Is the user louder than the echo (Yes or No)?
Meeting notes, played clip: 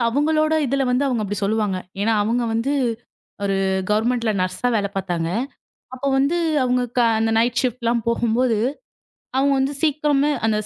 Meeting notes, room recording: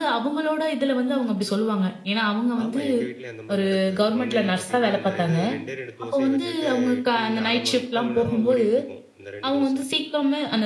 No